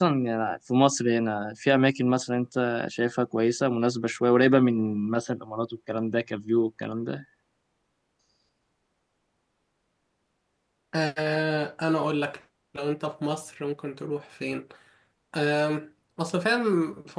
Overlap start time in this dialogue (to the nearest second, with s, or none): none